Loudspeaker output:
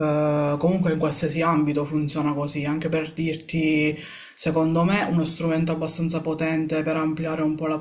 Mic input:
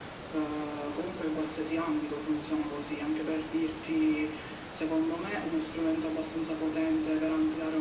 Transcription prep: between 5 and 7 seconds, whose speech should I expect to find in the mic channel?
echo only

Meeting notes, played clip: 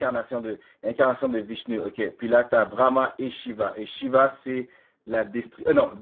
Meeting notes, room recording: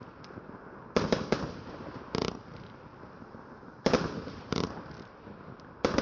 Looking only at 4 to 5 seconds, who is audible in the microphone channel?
neither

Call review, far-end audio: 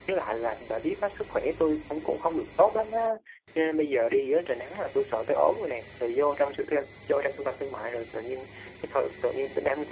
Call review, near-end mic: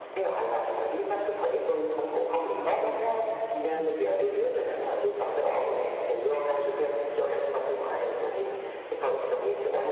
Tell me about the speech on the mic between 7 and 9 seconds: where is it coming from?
echo only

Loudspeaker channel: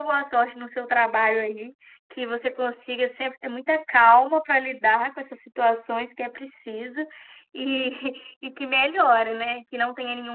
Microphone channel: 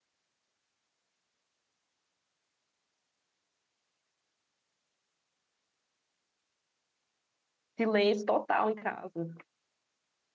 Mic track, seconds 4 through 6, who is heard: neither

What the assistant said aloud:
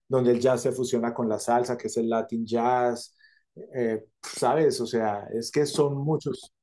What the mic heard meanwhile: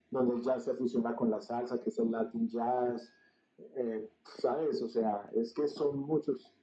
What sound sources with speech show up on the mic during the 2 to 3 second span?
echo only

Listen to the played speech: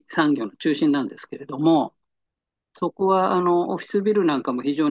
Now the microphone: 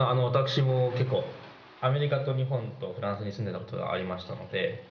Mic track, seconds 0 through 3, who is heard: user only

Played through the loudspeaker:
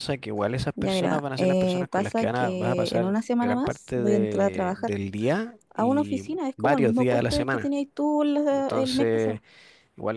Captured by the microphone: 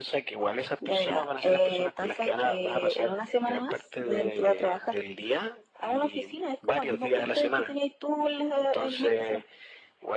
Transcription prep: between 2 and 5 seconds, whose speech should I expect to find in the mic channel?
echo only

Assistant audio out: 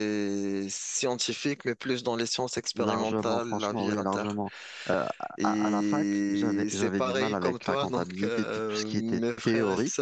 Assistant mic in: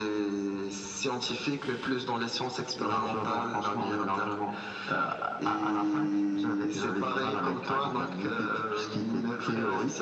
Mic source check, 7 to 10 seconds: echo only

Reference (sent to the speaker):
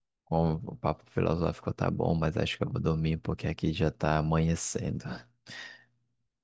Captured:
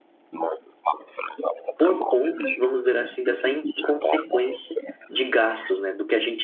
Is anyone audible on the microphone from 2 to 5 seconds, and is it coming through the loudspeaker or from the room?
both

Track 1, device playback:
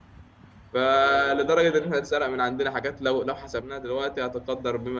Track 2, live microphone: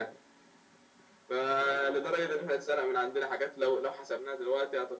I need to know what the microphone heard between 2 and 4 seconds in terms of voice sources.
echo only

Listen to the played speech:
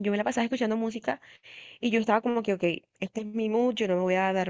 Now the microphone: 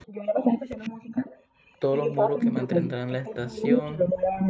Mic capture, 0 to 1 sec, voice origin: echo only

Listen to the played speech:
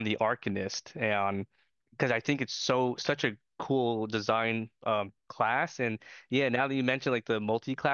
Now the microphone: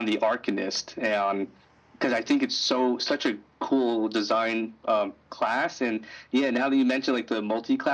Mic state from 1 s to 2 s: echo only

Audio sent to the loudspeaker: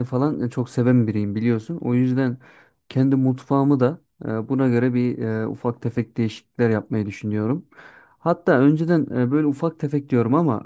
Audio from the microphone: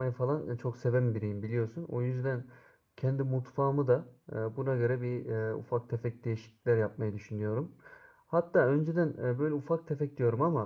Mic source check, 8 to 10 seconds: echo only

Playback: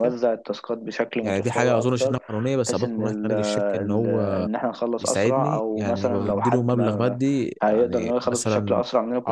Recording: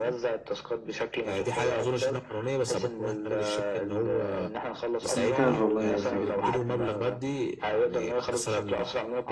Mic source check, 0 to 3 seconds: echo only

